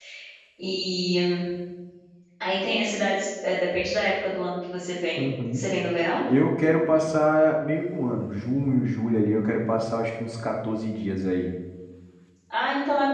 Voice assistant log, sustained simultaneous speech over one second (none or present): none